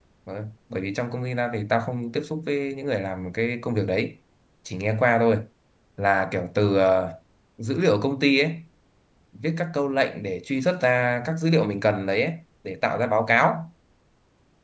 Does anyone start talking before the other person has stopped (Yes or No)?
No